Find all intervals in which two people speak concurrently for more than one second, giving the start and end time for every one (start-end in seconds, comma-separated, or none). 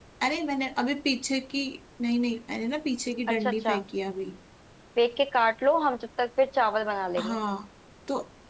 none